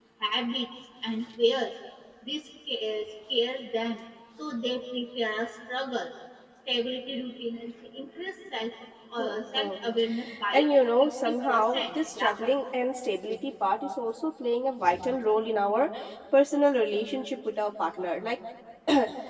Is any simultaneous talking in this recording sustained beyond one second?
Yes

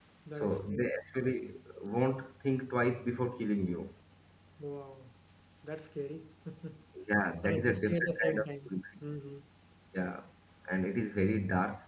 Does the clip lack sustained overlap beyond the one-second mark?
No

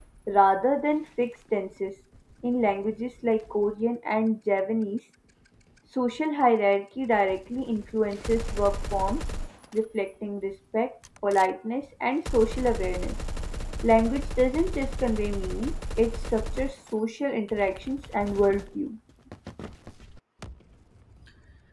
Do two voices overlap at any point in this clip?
No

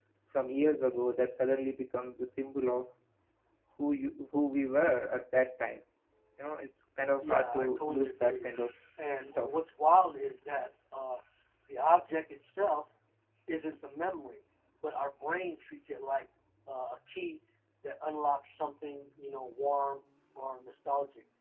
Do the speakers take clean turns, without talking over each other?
No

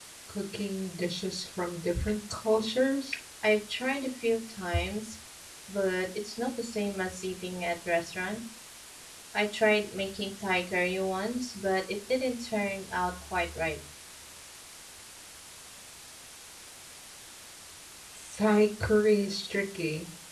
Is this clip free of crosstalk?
Yes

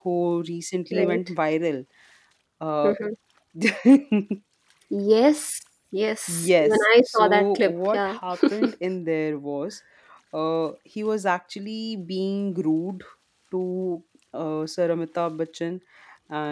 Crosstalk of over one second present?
Yes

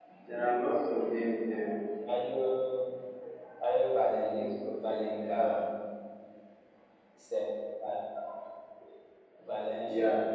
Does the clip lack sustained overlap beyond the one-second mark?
No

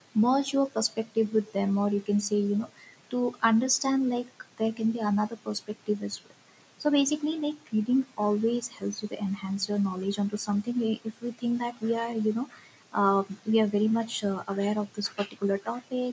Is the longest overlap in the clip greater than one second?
No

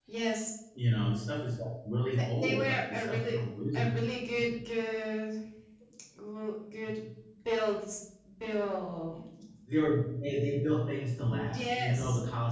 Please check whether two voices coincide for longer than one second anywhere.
Yes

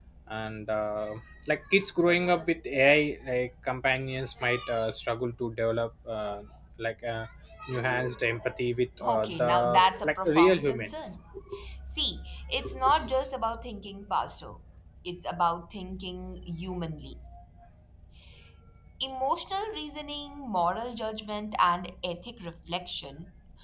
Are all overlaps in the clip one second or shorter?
No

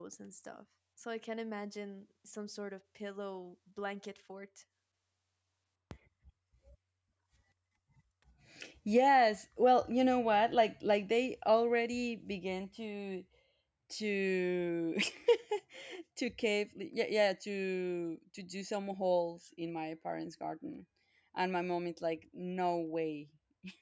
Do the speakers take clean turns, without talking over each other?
Yes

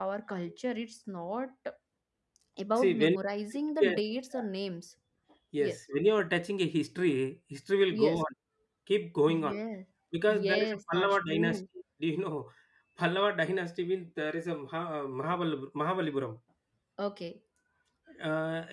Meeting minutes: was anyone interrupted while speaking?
Yes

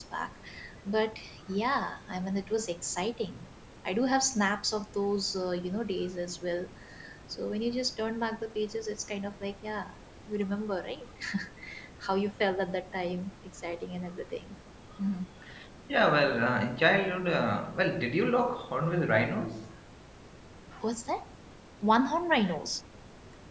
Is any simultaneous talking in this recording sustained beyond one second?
No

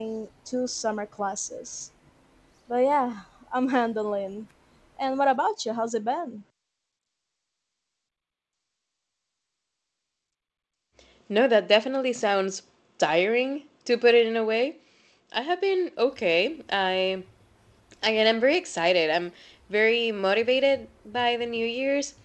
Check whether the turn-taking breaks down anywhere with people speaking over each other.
No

